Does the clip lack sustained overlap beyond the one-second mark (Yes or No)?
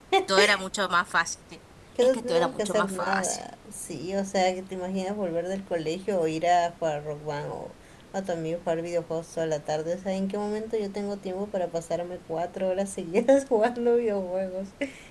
No